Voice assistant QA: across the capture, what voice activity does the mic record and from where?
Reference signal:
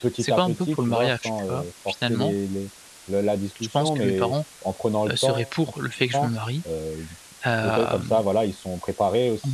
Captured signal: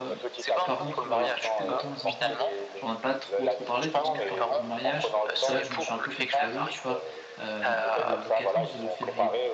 both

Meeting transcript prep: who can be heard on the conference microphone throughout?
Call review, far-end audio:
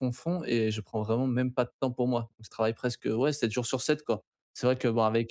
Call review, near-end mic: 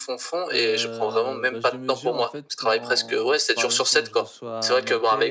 both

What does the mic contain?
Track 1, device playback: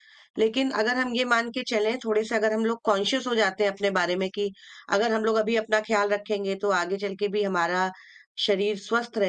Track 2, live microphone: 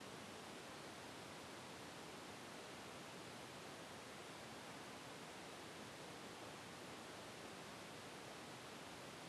neither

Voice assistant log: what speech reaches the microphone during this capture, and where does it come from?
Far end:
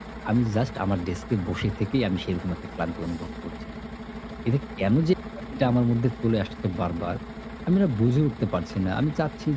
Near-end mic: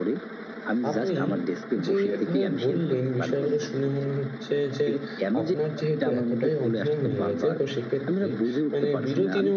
both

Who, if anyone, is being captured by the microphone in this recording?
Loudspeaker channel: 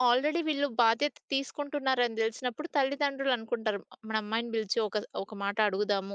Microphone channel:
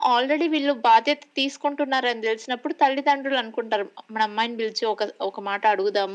echo only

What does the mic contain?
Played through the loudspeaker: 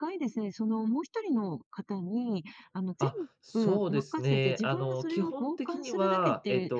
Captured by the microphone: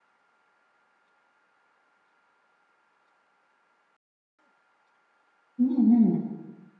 user only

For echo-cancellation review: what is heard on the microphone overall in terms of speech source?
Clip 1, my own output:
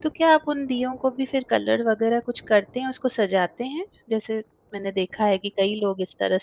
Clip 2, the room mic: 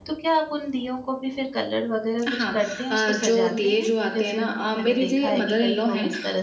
both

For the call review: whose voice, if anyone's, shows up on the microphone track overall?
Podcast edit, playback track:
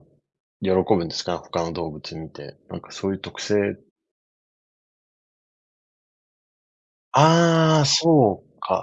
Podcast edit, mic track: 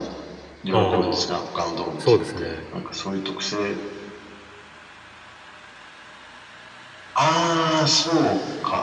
both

